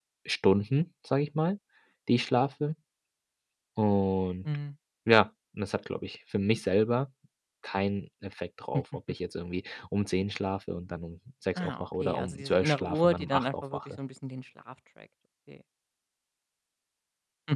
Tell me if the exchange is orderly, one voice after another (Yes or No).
No